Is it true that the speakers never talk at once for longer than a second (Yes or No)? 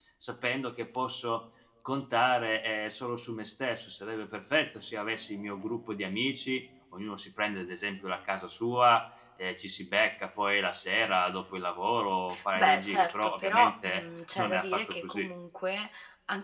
No